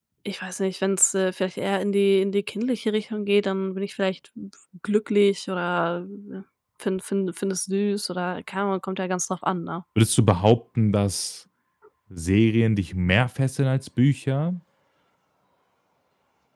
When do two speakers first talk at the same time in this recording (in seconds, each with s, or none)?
none